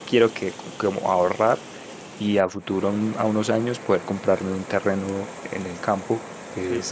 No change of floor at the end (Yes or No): Yes